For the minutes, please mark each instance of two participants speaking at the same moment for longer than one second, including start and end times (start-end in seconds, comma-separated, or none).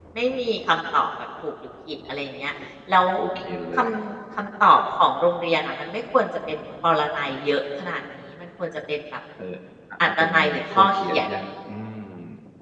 10.1-11.3